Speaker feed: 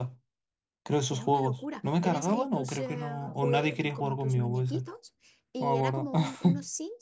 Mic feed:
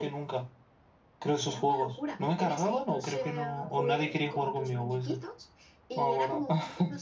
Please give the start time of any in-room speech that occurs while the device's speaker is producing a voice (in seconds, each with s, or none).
none